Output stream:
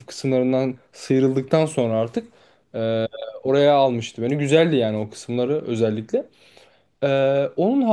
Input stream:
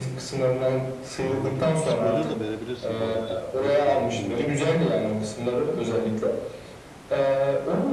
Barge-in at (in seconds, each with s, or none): 1.2 s